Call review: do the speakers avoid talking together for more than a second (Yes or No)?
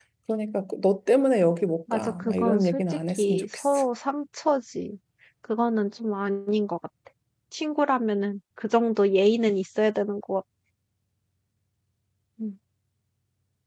No